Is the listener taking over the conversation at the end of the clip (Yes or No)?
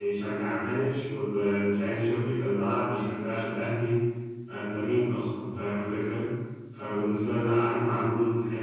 No